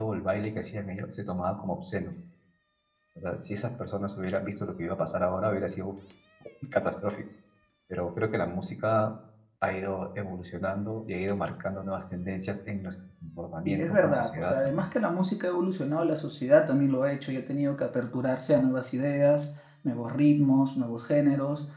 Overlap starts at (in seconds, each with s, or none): 13.7 s